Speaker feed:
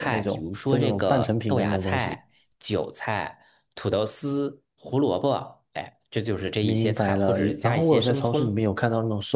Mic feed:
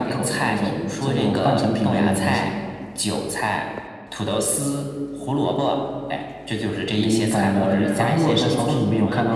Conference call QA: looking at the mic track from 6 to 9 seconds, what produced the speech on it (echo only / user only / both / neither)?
both